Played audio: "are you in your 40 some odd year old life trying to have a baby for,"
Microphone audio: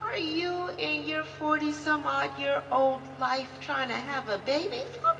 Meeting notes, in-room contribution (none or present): none